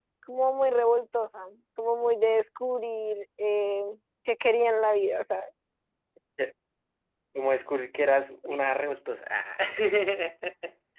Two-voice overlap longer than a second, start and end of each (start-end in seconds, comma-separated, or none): none